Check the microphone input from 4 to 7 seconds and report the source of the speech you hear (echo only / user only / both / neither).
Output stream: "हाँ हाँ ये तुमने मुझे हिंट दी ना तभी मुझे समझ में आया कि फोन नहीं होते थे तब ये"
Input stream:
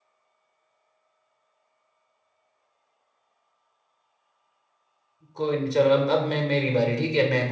user only